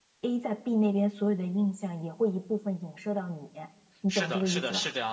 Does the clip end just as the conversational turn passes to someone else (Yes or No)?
Yes